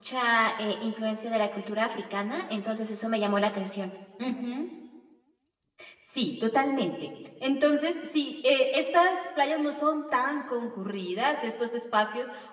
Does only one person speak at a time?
Yes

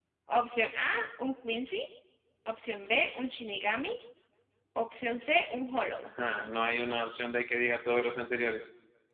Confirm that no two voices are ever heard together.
Yes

